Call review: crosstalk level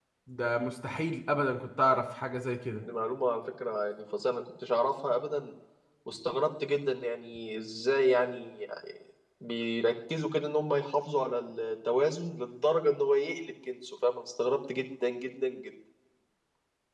none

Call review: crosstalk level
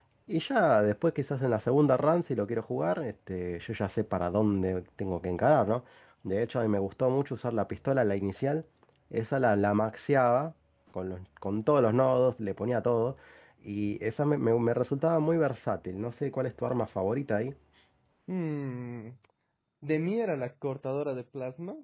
none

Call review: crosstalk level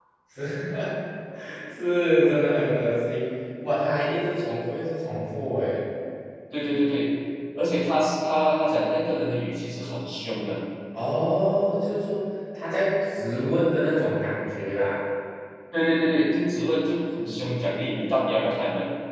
none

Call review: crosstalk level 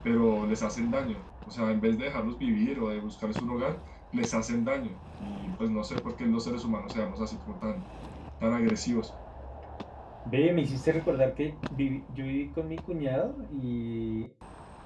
none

